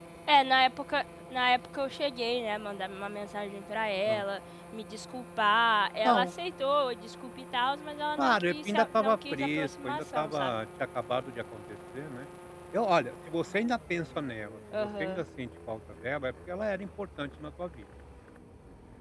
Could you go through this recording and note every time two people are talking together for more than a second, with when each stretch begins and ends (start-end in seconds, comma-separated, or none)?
8.2-10.5